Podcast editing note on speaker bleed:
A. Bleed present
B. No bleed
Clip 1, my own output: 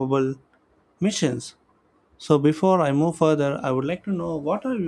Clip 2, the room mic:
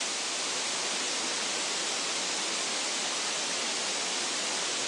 B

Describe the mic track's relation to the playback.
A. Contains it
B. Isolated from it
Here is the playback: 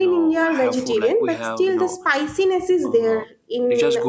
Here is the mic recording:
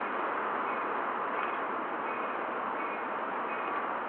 B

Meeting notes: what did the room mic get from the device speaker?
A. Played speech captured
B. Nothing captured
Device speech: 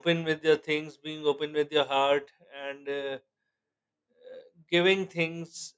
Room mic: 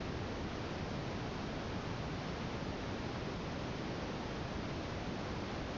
B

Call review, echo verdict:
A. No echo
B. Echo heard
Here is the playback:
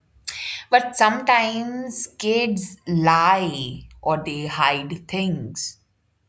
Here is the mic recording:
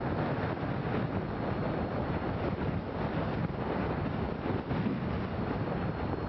A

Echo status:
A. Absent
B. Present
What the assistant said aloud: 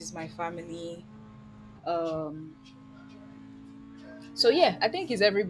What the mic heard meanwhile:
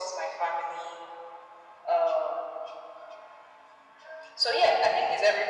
B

